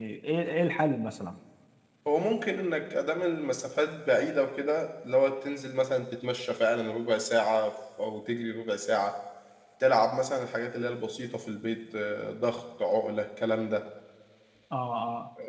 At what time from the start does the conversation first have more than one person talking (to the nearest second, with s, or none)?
none